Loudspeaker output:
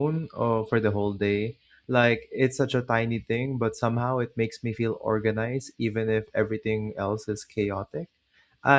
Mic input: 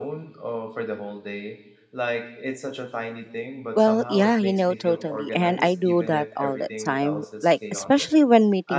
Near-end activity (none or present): present